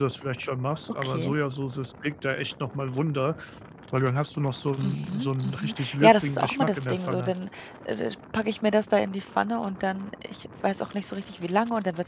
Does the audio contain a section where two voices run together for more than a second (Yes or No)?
Yes